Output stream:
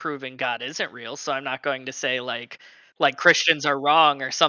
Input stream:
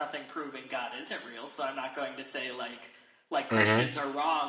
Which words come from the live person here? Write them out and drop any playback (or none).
Mhm,